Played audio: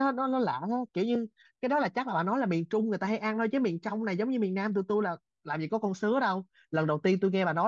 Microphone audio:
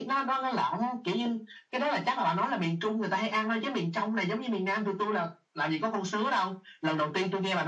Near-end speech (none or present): none